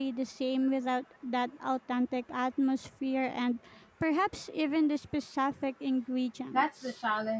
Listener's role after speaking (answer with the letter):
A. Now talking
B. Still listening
A